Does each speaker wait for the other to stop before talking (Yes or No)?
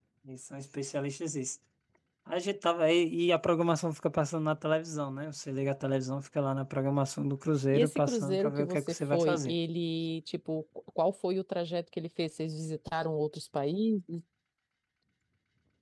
No